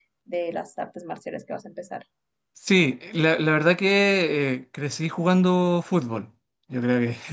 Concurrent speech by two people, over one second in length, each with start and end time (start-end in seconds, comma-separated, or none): none